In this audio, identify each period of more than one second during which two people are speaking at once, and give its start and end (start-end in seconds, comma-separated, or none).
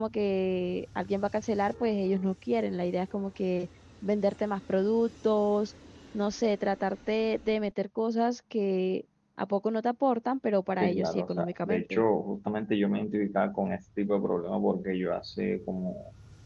10.8-12.0